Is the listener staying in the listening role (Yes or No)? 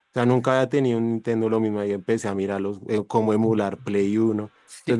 No